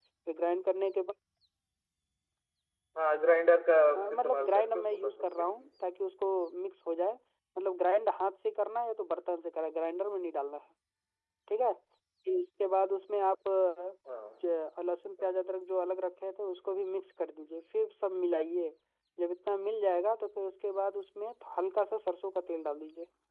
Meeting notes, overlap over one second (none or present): present